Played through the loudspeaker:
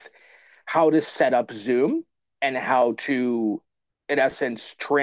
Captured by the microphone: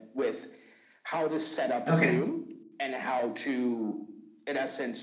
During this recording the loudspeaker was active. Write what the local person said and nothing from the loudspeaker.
okay

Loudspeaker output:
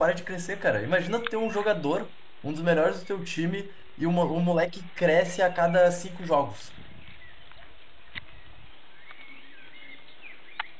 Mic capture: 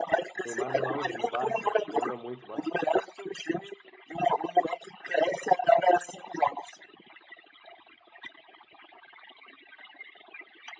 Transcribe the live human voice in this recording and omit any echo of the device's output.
Neymar no auge, no Barça, lembra muito, bah.

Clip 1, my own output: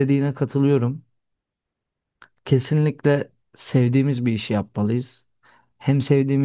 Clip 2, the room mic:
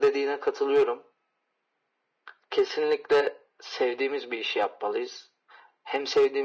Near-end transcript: none

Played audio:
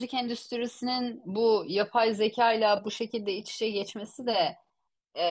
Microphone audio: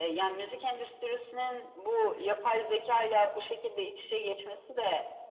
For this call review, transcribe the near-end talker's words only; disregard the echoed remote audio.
Hani

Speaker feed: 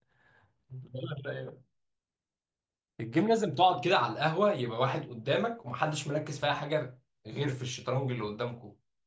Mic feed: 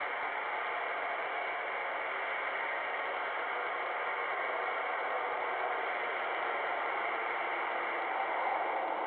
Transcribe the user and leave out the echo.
none

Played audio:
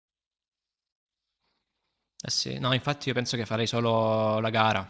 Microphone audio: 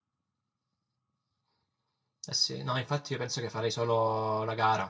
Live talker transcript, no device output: none

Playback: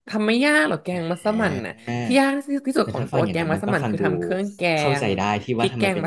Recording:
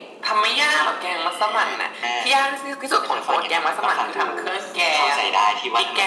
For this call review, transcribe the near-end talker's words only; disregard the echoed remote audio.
none

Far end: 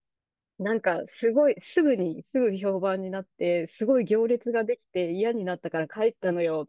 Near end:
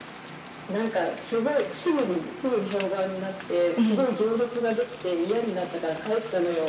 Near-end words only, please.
うん。

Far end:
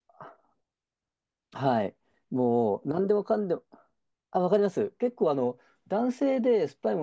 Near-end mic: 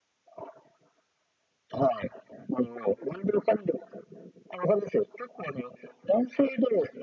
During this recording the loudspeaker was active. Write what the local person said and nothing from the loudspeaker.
none

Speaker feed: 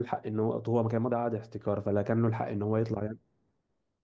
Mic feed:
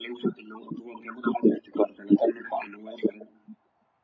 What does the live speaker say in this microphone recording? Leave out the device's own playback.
none

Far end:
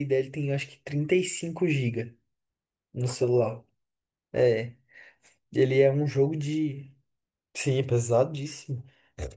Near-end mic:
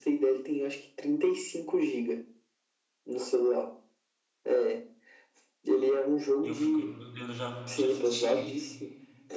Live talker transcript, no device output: E eu fico, meu Deus, eu já, já assisti.

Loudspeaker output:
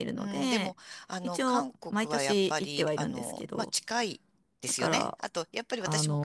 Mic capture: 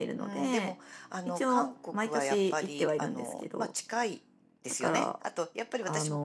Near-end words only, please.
none

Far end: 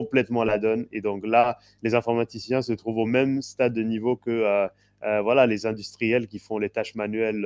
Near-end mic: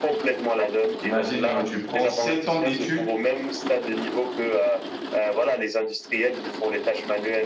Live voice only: Imagine, euh, tu prends sept ans d'études

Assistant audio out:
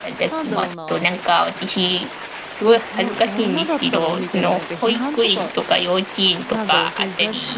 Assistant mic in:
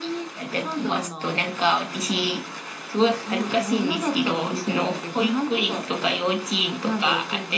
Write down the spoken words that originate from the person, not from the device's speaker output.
none

